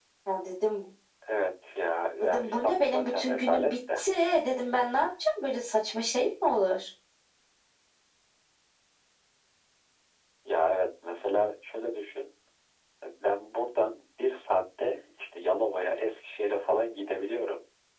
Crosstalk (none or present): present